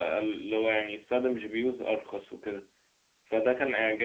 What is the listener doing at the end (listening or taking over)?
listening